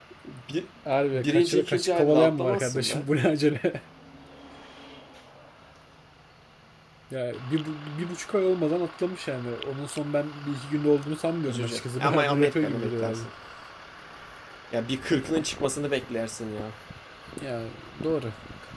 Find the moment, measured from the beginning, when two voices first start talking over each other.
1.1 s

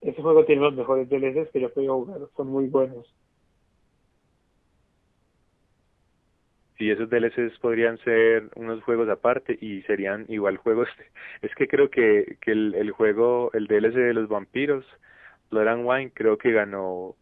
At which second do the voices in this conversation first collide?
none

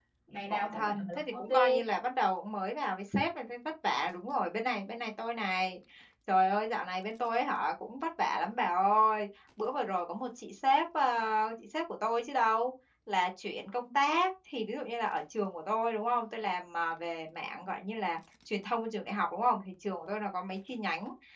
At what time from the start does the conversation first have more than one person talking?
0.5 s

